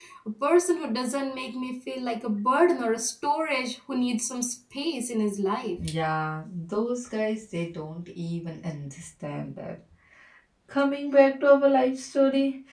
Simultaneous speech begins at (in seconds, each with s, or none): none